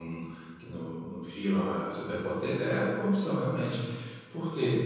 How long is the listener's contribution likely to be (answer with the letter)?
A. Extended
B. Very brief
B